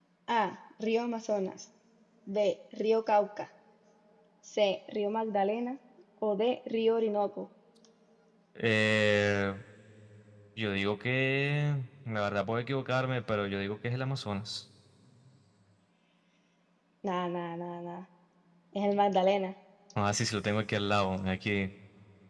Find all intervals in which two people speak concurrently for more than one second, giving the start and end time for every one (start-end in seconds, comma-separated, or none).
none